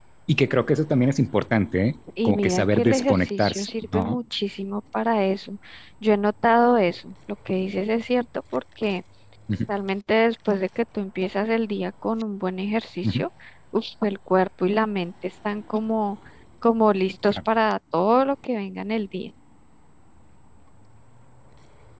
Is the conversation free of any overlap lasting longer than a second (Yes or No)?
No